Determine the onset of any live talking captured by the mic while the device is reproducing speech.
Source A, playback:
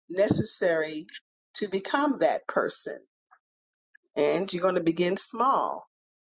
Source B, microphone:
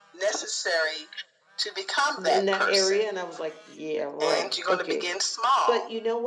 2 s

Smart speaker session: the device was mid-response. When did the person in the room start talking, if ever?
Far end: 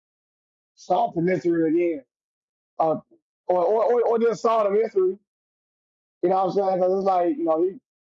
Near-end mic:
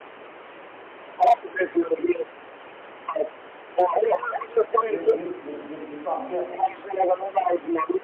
5 s

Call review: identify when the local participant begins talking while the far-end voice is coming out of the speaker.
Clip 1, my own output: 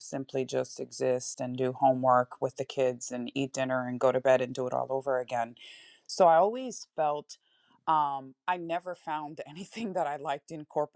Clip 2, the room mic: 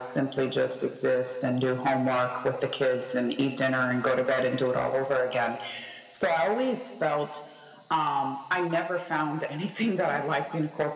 none

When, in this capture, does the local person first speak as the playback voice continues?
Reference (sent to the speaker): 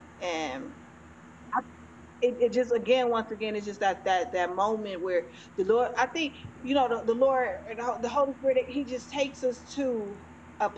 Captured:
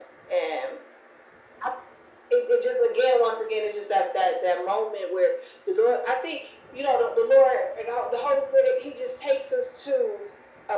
none

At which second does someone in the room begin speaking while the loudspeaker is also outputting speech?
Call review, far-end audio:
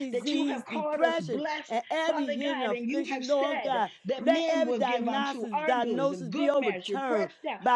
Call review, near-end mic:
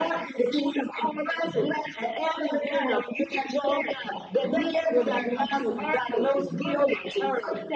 none

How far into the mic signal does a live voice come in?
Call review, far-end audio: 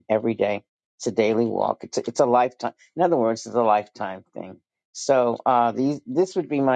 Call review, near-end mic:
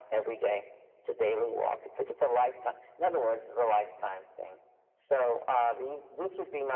none

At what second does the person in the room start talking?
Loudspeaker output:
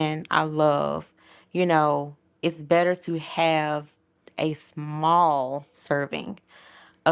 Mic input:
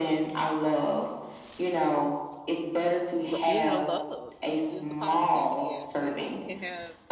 3 s

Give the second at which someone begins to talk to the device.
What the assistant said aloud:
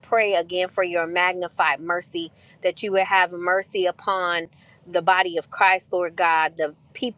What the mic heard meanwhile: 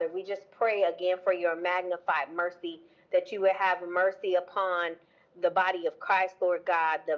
none

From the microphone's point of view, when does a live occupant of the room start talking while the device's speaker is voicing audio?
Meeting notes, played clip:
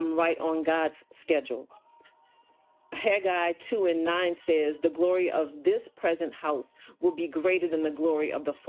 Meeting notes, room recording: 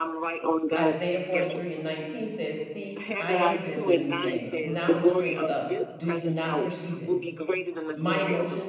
1 s

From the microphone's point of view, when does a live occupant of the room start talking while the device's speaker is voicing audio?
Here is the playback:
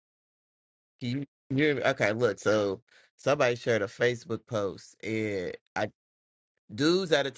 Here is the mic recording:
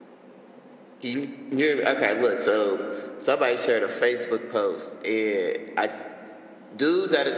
none

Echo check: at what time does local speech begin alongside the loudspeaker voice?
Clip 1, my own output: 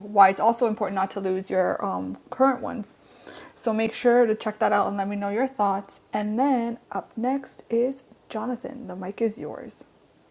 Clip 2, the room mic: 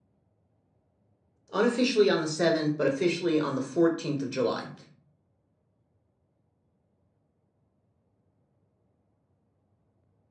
2 s

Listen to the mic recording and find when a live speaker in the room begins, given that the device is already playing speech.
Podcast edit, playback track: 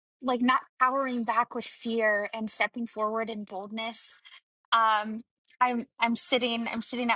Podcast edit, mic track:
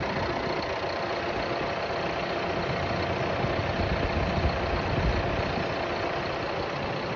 none

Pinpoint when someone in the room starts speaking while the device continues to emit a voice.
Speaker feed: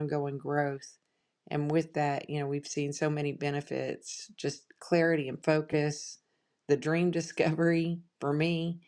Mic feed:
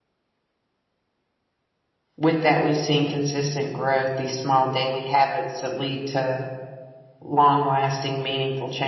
2 s

